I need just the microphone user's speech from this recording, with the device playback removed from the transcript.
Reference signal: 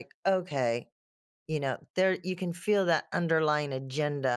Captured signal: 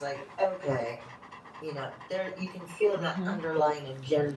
Mhm.

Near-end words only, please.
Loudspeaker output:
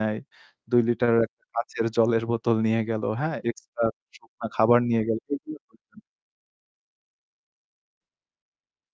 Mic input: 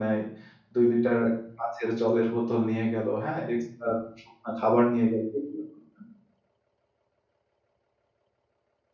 none

